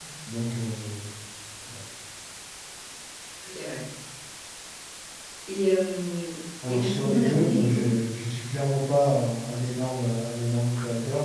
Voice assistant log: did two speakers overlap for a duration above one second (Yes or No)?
Yes